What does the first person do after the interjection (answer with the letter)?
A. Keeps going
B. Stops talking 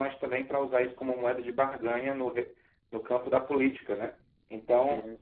A